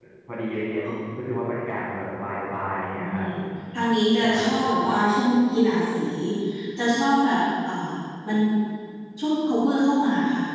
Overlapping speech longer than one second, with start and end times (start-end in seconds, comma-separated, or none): none